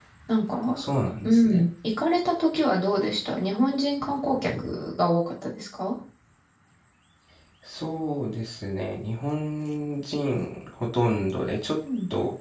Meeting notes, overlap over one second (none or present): none